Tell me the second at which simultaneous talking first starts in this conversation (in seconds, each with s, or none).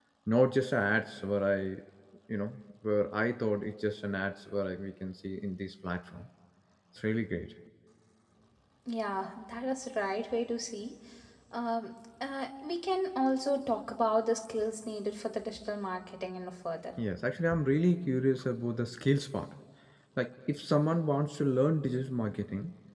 none